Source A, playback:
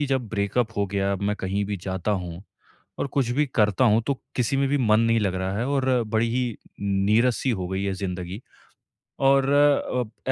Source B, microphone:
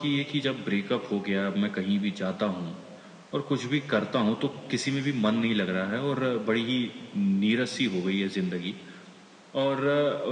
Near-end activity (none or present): none